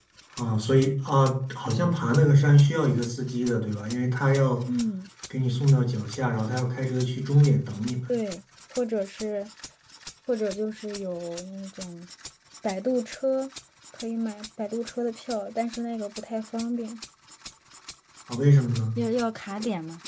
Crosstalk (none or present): none